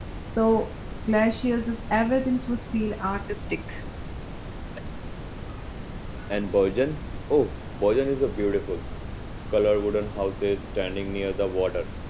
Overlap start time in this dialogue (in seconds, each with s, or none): none